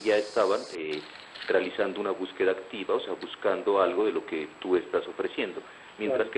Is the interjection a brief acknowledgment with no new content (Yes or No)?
Yes